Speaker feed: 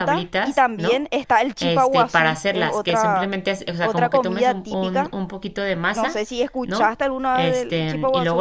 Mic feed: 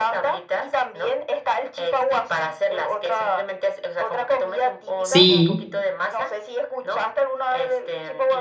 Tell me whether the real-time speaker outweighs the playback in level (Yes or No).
Yes